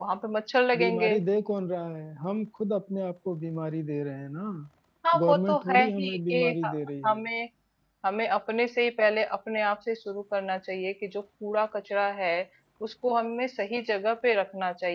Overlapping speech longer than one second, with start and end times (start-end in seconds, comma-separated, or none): 5.2-6.7